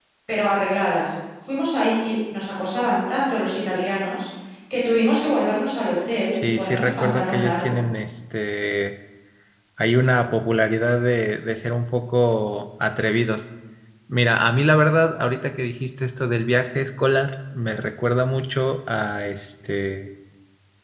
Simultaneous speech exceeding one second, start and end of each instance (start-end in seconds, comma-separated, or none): 6.3-7.8